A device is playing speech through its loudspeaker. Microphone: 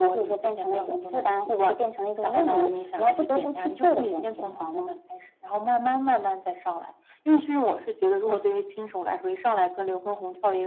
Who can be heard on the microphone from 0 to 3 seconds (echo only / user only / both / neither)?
echo only